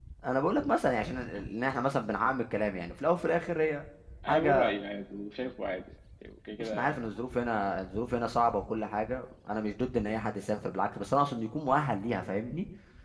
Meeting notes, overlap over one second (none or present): none